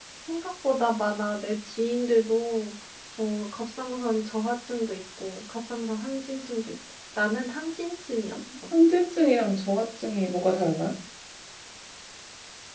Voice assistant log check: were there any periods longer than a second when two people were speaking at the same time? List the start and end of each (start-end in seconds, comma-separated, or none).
none